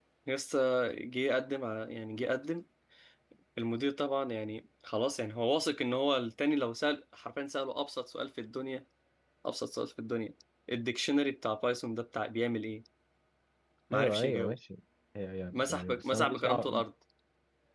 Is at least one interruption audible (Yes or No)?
Yes